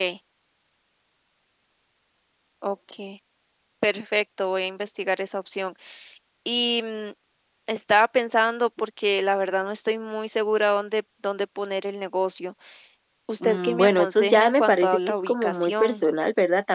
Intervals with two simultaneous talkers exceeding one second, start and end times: 13.4-16.0

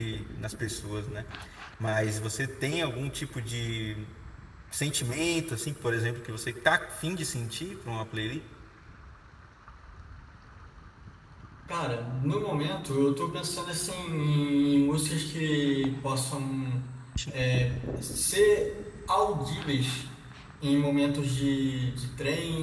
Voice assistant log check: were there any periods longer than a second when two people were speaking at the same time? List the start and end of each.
none

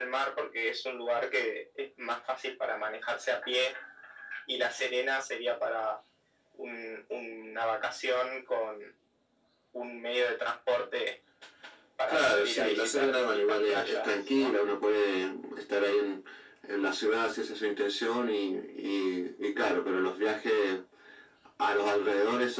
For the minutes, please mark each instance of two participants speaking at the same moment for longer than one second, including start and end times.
12.1-14.5

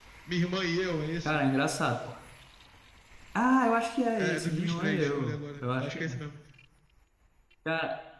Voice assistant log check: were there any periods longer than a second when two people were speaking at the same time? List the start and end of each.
4.2-5.9

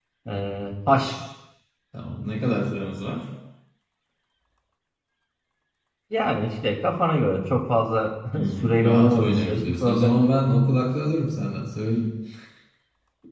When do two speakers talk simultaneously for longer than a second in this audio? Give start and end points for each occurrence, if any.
8.4-10.3

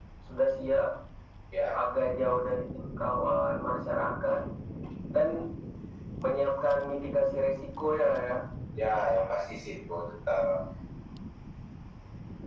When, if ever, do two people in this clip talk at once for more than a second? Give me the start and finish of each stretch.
none

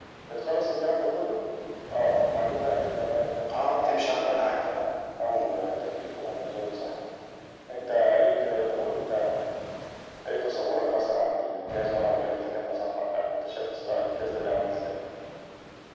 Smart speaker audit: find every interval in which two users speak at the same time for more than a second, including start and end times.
3.5-4.8

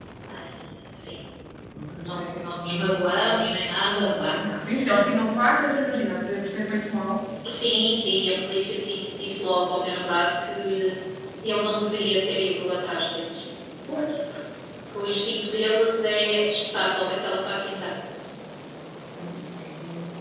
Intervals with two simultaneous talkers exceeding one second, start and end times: 2.0-3.4

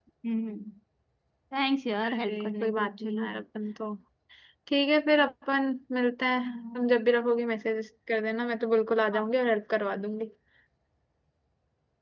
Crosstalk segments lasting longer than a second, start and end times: 2.0-3.3

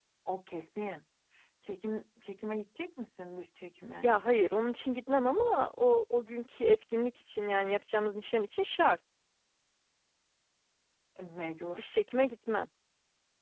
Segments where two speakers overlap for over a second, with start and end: none

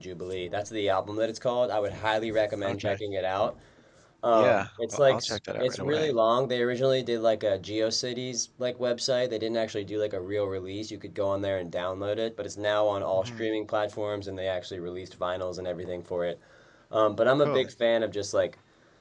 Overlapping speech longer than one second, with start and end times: 4.3-6.1

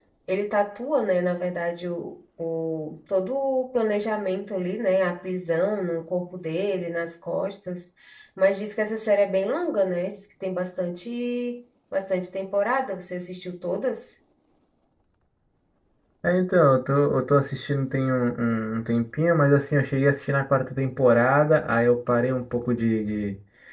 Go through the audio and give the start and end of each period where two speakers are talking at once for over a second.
none

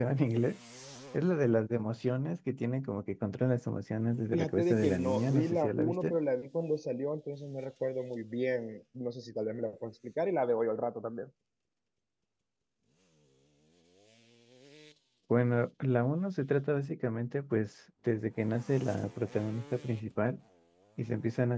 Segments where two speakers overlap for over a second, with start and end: 4.3-6.2

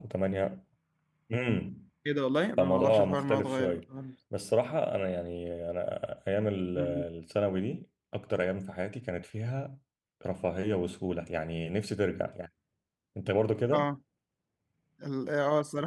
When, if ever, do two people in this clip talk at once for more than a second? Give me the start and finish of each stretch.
2.6-3.8

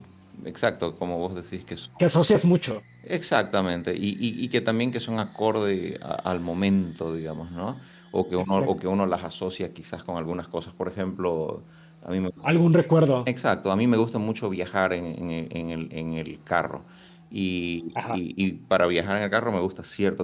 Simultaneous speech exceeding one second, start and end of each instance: none

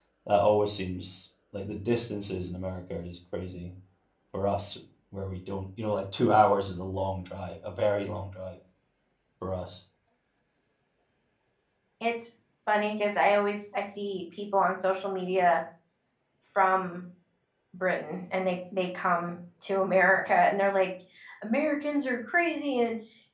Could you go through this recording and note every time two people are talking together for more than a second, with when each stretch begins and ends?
none

